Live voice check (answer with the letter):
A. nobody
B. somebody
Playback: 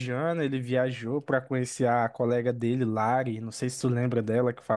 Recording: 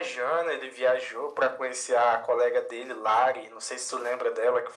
A